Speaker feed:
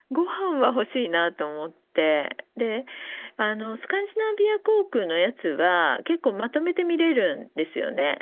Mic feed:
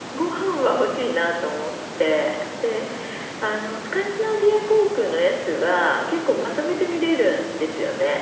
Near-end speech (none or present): none